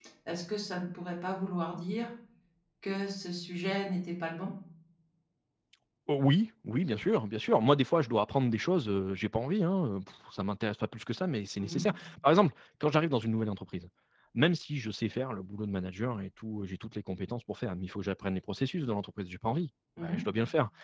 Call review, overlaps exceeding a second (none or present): none